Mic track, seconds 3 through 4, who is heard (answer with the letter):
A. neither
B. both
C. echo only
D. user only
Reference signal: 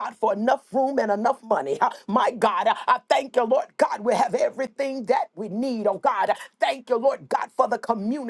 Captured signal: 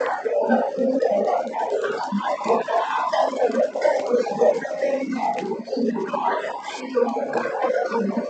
C